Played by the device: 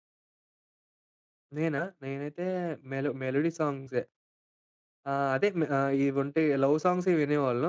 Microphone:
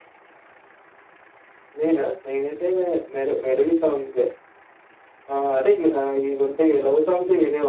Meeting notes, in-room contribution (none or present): none